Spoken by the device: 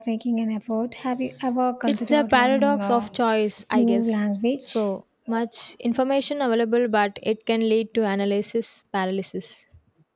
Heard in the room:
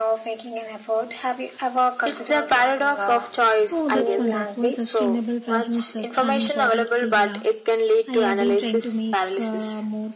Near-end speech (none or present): present